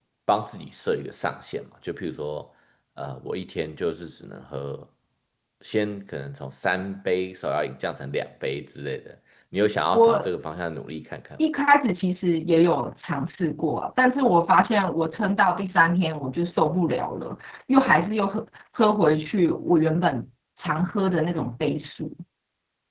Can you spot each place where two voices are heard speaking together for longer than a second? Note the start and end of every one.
none

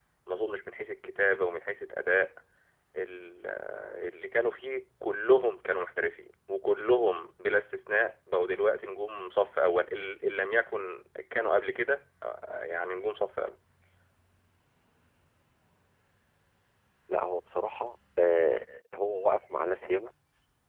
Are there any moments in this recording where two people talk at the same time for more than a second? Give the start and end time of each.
none

